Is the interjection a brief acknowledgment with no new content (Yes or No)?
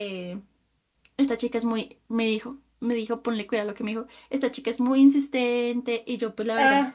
Yes